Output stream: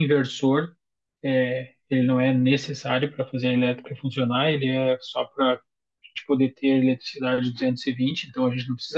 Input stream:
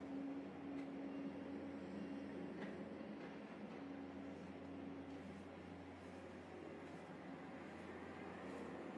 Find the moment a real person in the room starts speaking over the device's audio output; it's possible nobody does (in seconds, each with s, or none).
none